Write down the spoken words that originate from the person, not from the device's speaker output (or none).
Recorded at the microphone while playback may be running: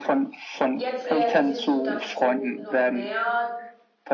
Jetzt realisierst du, dass du noch mehr